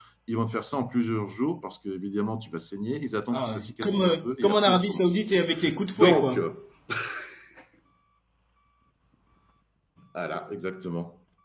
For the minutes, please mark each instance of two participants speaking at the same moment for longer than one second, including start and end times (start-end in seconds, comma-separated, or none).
3.3-5.1